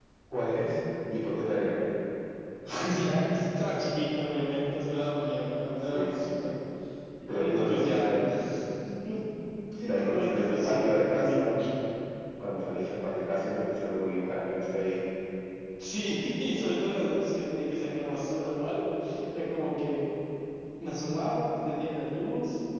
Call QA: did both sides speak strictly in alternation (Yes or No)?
No